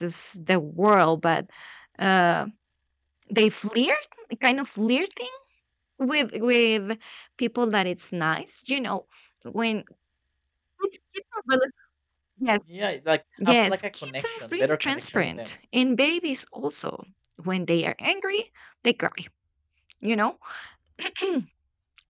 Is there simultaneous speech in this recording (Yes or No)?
Yes